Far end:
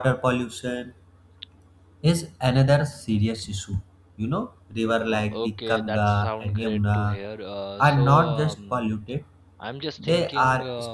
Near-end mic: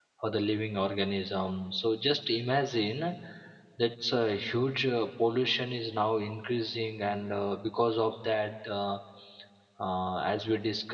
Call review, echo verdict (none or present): none